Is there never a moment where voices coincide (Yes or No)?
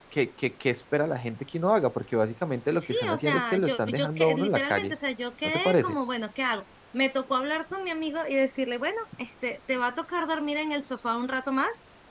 No